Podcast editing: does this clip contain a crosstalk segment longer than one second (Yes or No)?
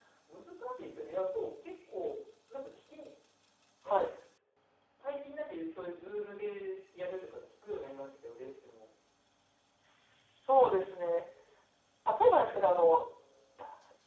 No